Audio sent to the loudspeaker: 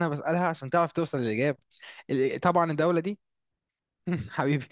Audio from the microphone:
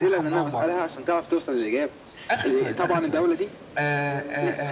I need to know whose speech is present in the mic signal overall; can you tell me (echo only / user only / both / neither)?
both